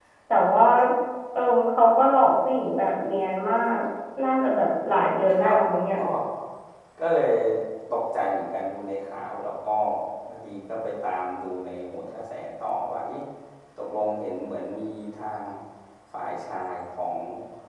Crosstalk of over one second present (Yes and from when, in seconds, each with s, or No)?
No